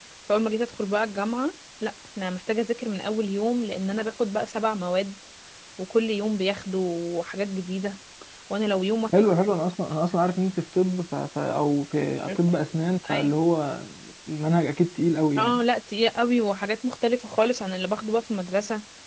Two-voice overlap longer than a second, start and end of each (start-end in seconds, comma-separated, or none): none